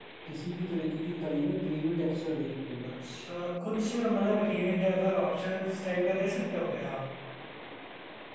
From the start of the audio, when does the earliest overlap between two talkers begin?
none

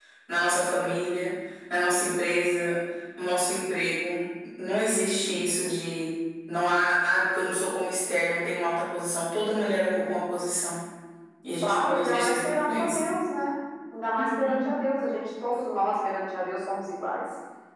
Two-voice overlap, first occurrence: 12 s

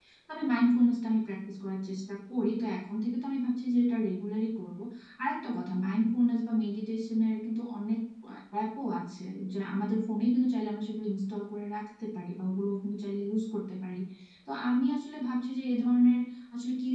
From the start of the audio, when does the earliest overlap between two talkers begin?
none

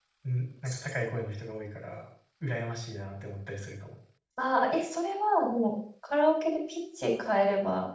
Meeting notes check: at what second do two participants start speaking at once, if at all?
none

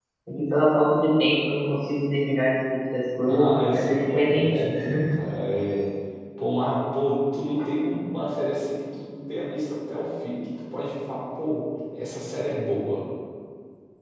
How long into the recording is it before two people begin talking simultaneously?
3 s

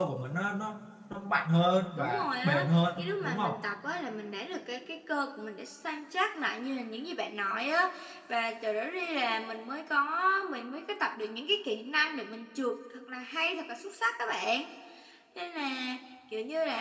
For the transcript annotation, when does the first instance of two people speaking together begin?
2 s

